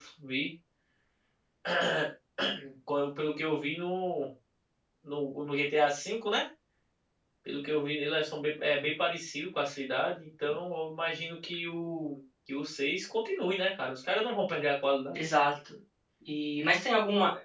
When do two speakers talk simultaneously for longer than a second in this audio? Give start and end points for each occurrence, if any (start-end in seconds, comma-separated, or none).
none